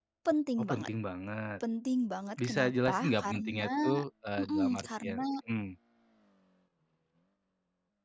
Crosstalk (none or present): present